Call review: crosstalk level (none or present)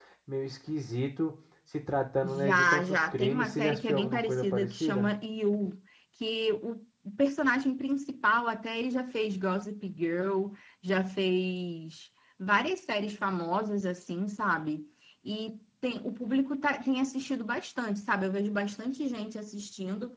present